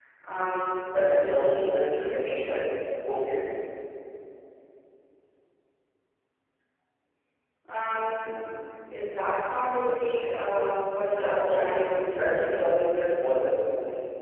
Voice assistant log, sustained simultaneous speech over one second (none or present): present